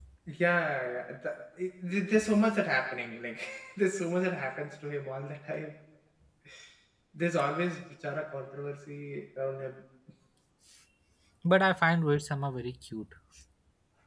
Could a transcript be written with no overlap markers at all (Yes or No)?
Yes